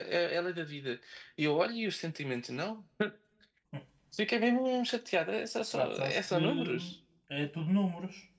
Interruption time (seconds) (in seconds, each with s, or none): 5.7 s